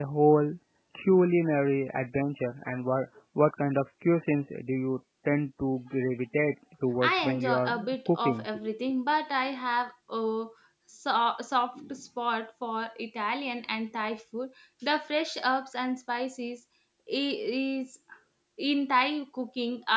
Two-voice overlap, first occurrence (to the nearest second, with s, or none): 7 s